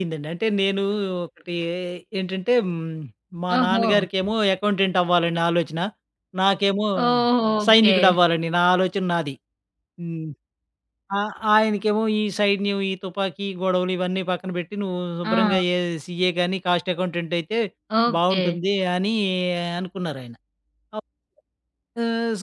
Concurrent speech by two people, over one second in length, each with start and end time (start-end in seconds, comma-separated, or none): none